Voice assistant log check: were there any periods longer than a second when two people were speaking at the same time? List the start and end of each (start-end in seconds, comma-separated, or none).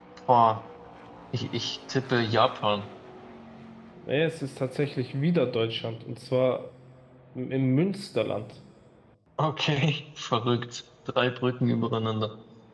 none